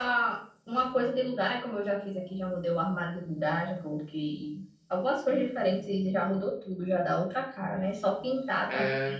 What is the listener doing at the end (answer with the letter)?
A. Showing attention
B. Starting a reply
A